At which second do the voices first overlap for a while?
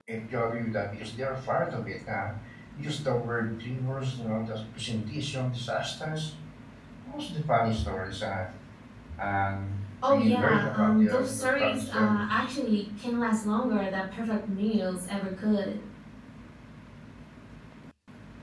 10.0 s

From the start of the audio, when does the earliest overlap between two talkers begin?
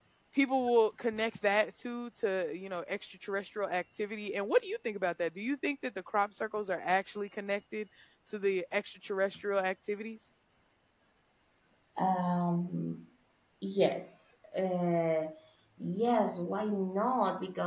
none

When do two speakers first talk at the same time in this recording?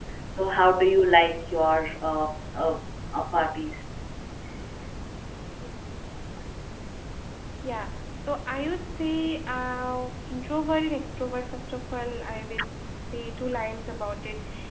none

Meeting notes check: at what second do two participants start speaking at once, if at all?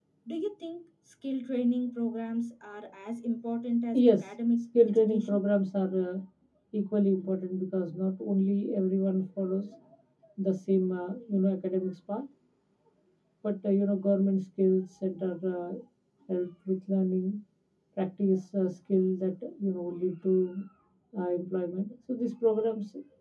3.9 s

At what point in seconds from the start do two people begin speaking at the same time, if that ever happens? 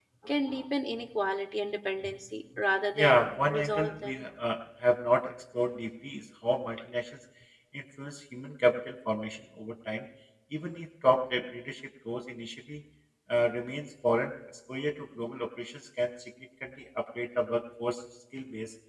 3.0 s

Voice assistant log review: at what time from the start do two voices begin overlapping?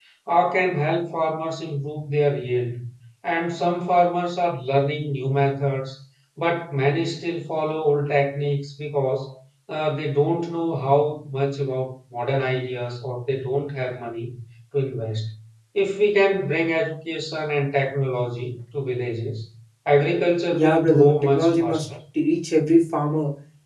20.5 s

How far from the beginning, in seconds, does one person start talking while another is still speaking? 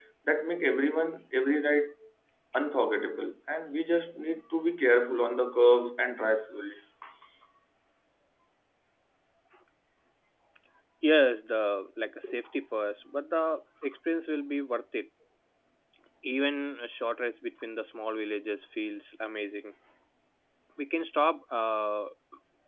none

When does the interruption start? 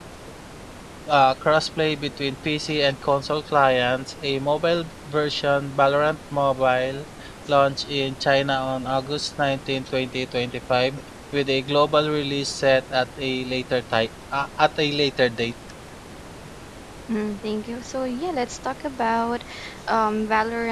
none

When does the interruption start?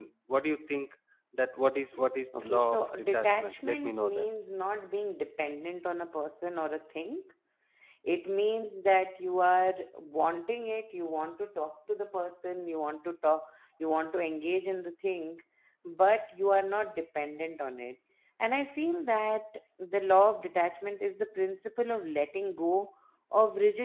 2.3 s

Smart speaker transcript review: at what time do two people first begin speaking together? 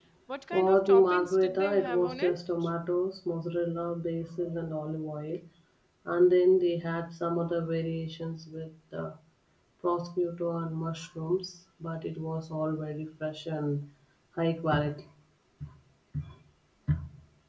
0.5 s

